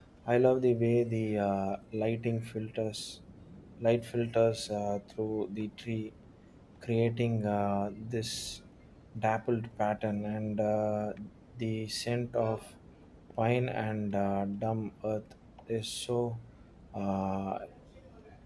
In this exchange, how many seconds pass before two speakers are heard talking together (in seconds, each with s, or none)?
none